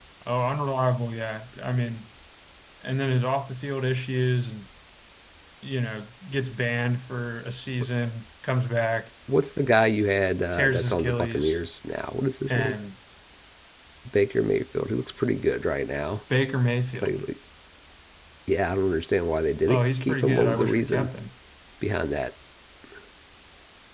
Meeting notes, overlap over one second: present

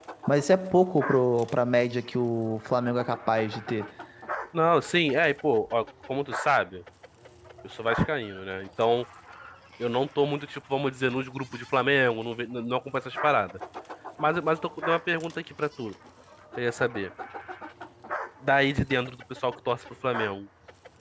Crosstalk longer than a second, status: none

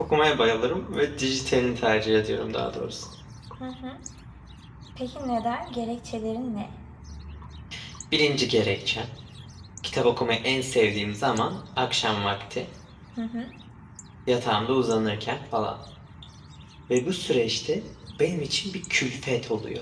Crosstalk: none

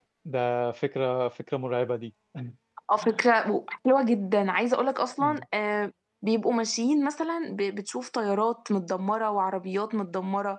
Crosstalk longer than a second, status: none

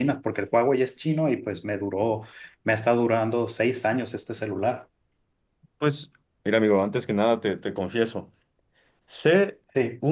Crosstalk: none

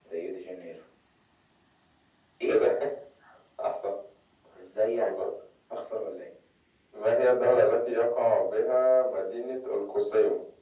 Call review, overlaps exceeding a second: none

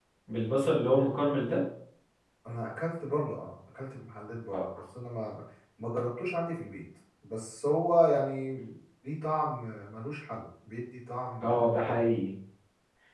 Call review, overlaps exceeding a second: none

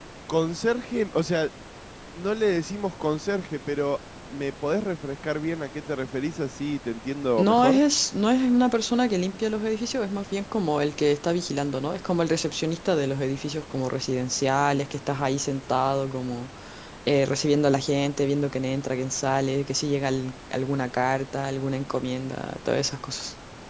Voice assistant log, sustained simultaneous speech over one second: none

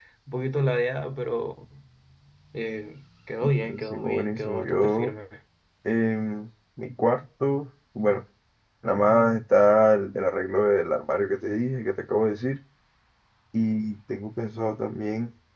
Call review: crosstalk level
present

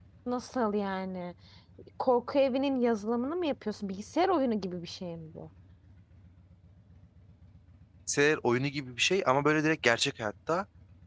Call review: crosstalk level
none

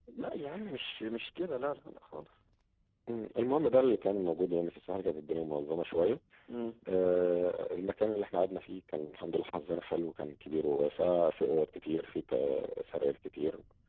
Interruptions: none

